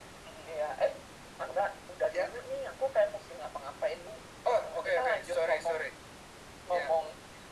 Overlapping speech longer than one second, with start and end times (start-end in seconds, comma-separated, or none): 4.6-5.9